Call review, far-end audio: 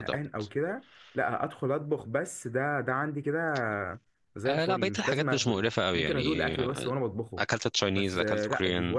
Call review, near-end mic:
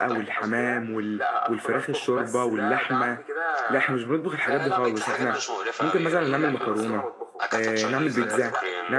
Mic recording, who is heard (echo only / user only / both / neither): both